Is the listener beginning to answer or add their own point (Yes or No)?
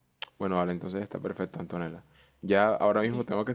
No